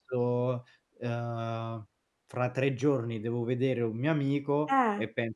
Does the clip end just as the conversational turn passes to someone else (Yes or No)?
No